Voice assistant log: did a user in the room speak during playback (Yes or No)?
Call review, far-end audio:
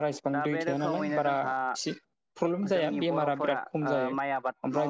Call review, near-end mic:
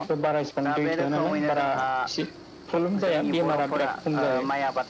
No